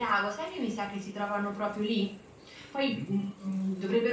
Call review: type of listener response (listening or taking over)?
listening